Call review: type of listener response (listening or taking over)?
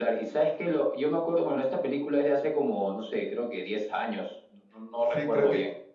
taking over